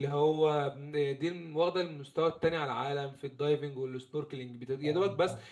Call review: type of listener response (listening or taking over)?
listening